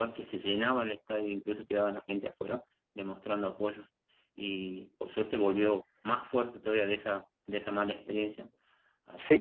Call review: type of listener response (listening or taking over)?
taking over